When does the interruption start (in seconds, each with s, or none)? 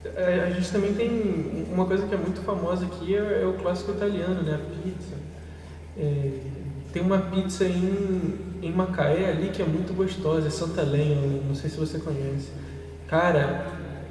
none